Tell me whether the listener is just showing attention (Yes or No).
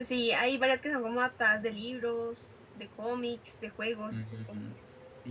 No